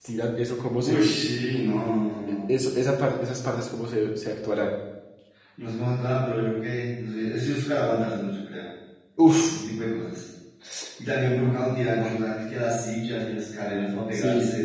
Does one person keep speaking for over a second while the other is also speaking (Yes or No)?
No